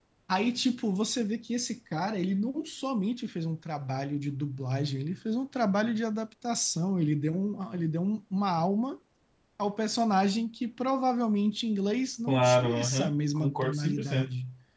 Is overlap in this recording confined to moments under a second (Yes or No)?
No